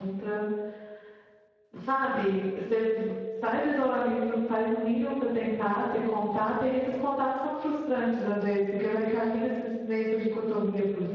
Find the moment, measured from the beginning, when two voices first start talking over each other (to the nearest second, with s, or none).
none